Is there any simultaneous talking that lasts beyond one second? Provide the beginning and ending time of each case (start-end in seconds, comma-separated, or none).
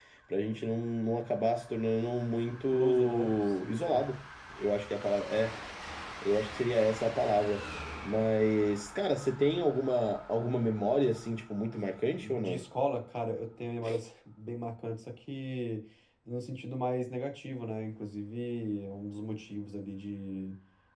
2.5-4.1